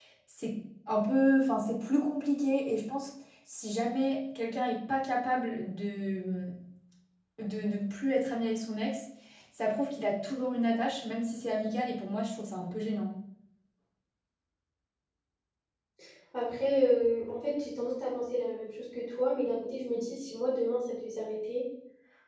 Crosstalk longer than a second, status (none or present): none